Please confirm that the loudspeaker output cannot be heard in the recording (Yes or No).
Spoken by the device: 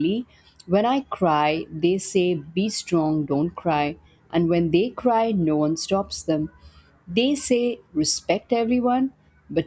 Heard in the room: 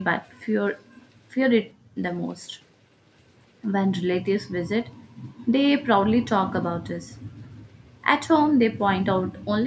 Yes